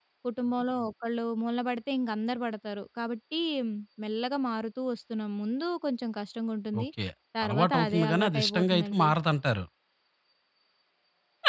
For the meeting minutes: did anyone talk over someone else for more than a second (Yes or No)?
Yes